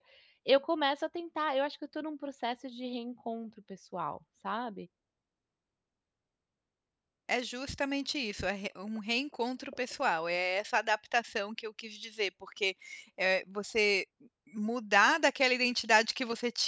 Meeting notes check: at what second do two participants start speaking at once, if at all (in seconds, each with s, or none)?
none